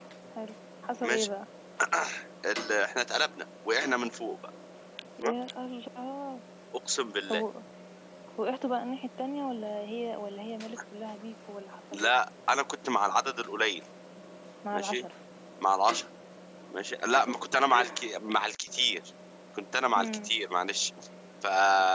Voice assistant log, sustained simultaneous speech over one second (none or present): none